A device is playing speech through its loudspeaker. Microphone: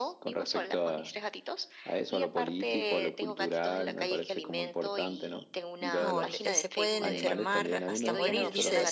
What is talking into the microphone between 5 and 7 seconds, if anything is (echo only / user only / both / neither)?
both